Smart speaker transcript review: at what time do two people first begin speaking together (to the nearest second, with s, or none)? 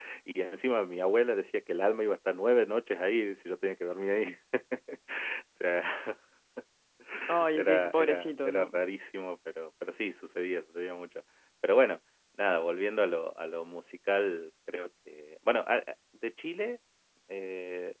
8 s